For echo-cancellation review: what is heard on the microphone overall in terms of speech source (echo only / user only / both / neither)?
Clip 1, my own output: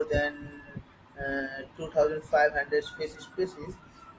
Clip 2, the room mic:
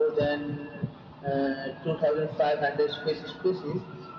echo only